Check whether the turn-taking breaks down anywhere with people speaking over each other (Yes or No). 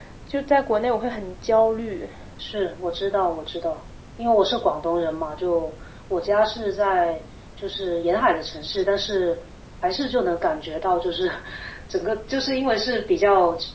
No